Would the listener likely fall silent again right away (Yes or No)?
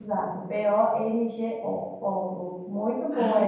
Yes